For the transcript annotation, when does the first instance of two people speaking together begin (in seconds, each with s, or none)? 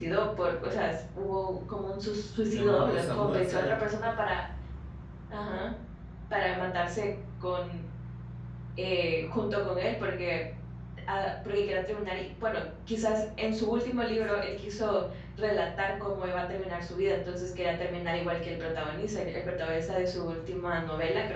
2.5 s